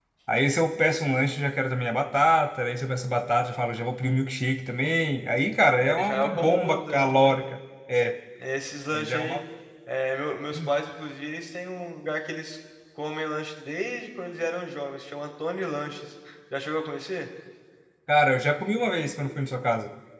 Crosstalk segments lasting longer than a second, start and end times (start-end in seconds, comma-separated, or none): 5.8-7.3